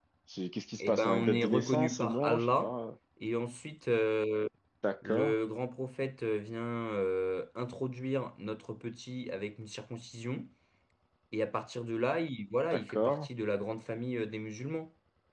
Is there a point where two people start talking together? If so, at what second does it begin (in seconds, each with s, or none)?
0.8 s